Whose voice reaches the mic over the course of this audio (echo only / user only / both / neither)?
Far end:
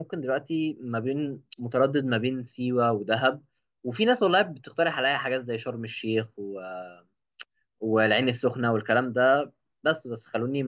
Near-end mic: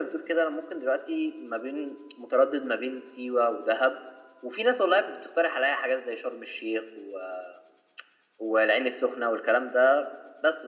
echo only